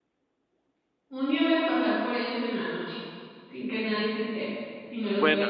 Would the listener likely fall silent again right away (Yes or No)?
No